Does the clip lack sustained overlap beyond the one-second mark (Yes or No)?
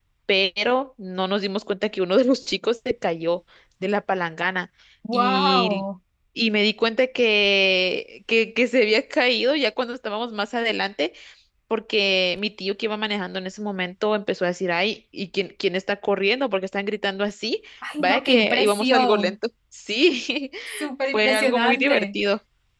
No